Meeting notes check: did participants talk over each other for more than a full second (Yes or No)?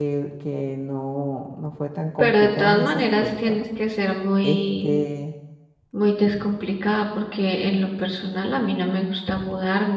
Yes